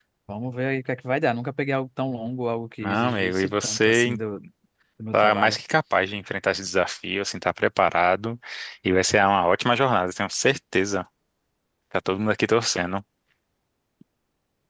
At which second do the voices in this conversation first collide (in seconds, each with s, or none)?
2.8 s